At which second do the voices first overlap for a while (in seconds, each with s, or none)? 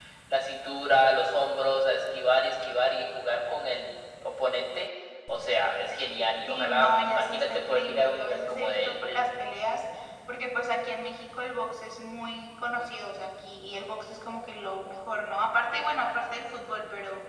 6.5 s